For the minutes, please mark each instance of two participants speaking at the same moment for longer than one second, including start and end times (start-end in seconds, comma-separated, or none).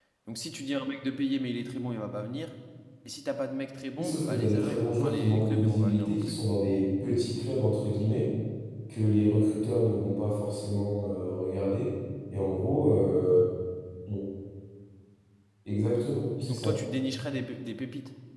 4.0-6.4